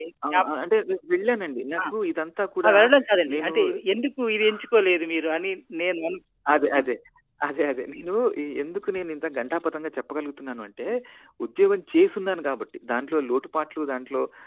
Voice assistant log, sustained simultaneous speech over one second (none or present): none